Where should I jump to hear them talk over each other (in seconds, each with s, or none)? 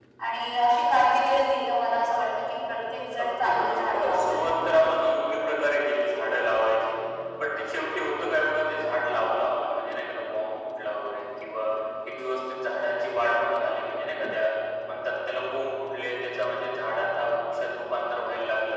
3.2 s